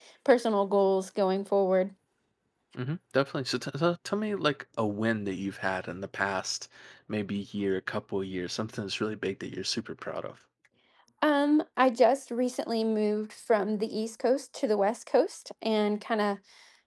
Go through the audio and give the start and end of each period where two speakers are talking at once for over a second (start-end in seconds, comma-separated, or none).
none